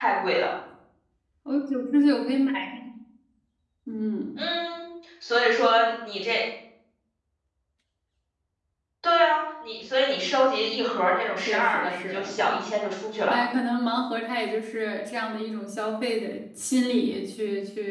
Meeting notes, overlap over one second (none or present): present